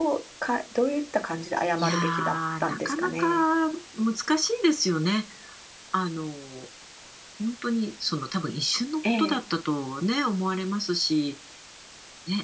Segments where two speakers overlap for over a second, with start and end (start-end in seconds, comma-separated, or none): 1.8-3.4